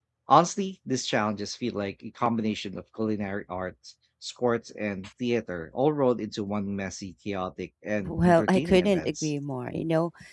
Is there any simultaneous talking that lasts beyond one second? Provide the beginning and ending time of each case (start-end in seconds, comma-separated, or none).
8.1-9.3